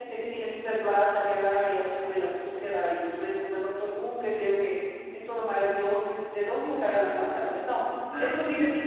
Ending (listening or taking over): listening